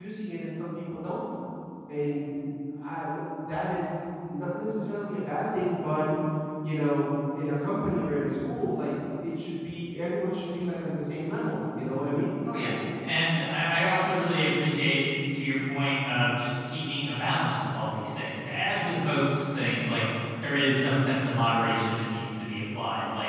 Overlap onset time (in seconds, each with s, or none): none